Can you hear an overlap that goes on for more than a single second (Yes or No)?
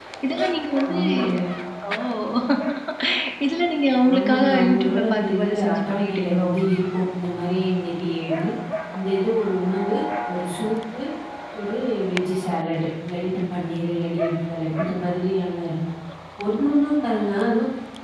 Yes